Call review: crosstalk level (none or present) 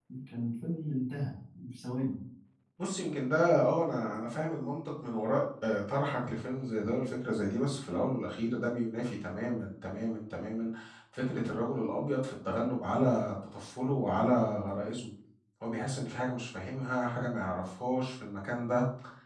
none